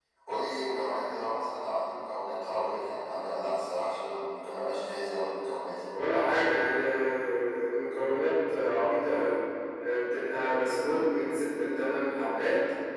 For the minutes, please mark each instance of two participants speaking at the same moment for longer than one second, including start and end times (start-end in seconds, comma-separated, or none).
none